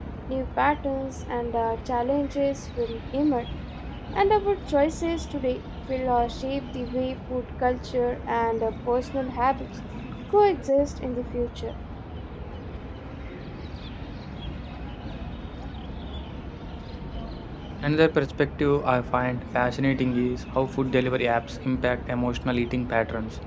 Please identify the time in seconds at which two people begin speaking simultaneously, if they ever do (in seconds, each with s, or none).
none